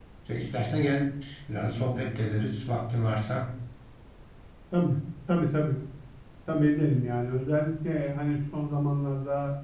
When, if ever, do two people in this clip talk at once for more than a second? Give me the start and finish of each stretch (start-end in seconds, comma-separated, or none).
none